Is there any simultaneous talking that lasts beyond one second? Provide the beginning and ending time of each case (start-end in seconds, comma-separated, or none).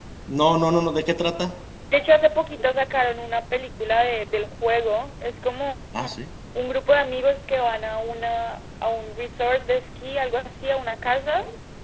none